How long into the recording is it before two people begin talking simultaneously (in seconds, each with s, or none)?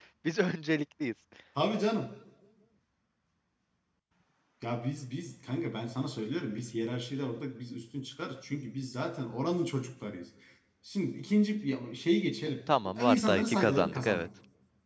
12.7 s